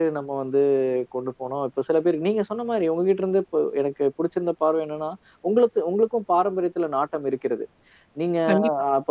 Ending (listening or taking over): listening